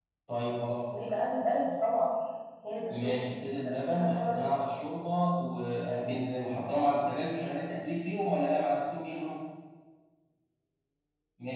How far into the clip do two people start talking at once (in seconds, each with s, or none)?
2.9 s